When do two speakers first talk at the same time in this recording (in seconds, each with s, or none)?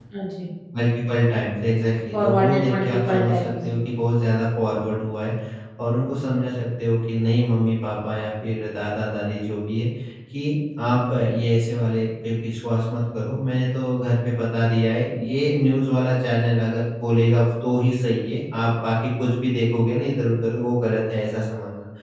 2.1 s